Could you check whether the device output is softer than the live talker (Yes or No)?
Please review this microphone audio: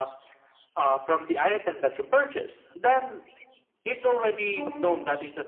No